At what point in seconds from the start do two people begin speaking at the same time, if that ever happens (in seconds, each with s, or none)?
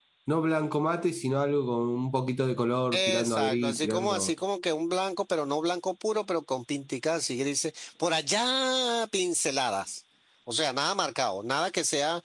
2.9 s